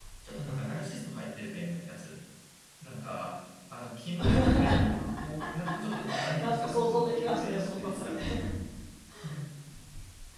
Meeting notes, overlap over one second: present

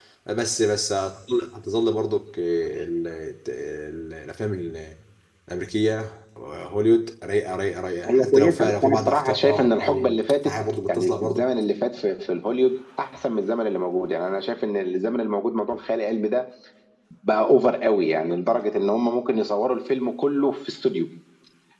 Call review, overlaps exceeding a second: present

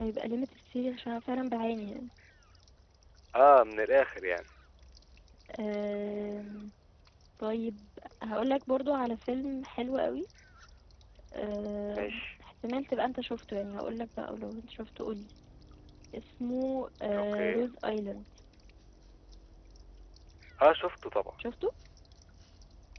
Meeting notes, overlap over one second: none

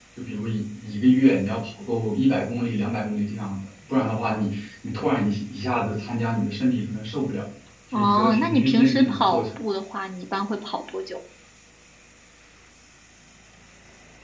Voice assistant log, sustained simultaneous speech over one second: present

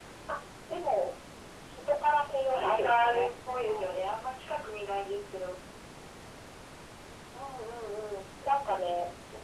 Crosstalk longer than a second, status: present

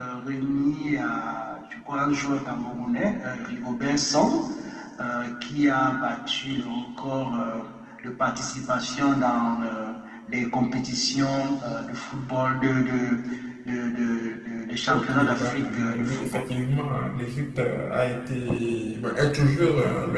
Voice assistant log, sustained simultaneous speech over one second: present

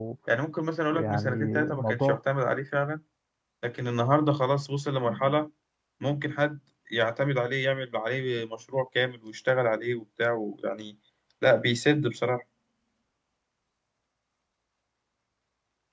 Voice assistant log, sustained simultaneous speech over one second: present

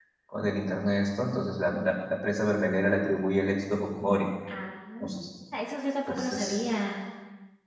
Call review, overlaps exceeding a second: none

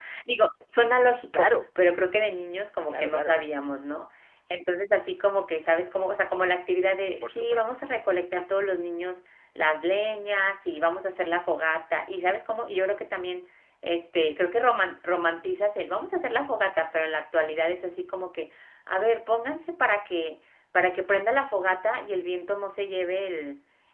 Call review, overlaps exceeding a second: none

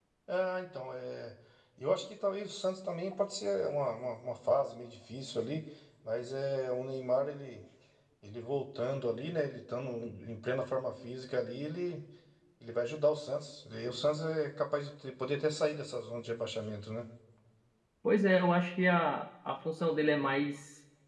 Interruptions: none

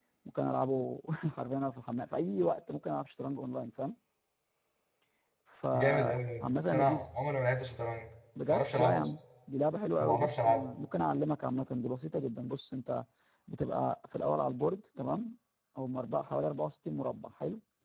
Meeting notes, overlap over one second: present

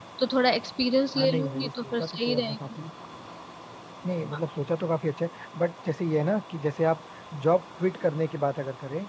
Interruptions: present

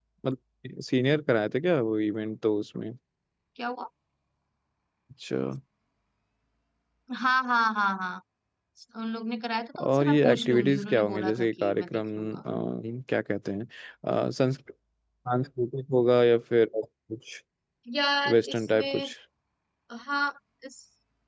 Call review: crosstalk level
present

